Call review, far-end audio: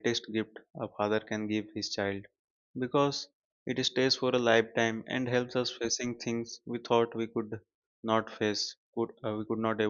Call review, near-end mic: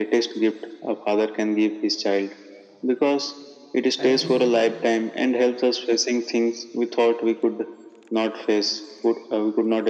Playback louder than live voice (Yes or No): Yes